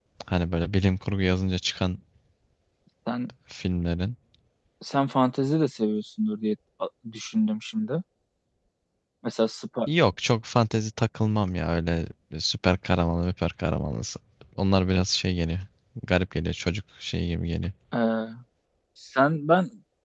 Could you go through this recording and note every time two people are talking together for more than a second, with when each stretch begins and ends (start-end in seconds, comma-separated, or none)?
none